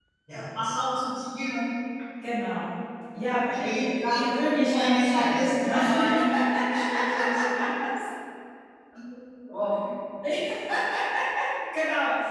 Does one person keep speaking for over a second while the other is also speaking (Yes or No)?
Yes